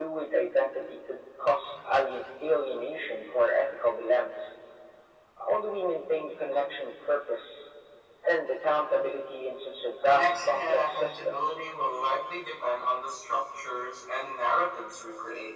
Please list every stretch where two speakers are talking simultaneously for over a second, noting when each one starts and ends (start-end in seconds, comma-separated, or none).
10.1-11.4